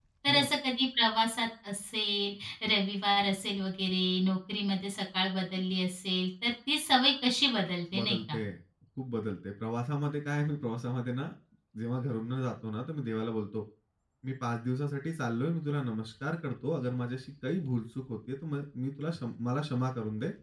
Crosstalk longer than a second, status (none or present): none